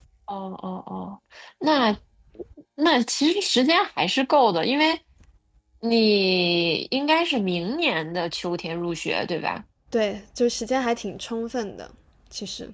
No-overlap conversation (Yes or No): Yes